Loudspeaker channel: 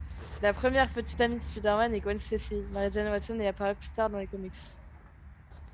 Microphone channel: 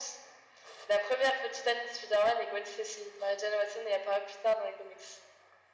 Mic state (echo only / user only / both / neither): echo only